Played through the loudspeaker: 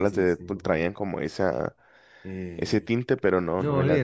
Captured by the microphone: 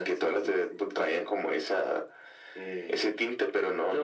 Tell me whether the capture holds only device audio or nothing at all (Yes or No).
Yes